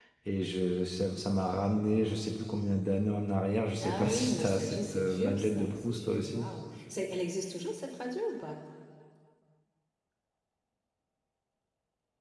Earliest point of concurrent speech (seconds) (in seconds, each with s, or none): 3.8 s